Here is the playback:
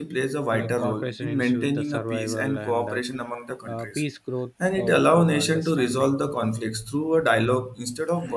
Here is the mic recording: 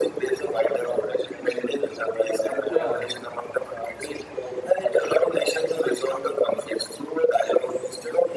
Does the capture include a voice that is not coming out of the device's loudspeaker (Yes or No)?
Yes